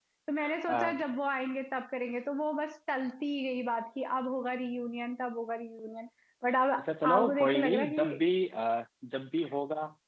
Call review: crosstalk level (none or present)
present